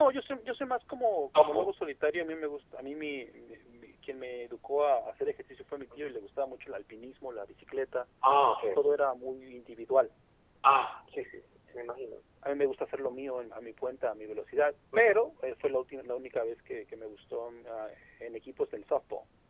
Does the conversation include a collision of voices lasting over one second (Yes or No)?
No